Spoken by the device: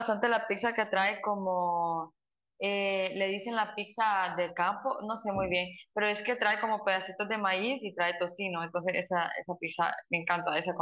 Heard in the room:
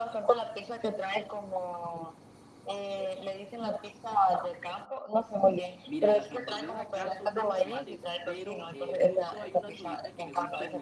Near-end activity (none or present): present